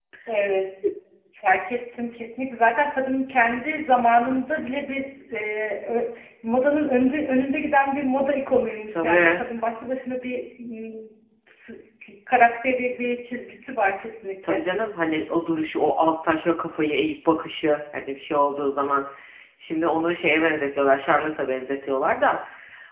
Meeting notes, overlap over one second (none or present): none